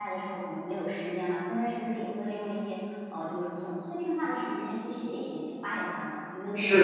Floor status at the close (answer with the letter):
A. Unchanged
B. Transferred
B